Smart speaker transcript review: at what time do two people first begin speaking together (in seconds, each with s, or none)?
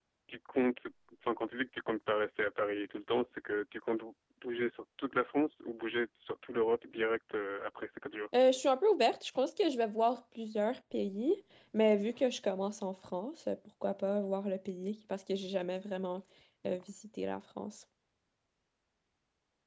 none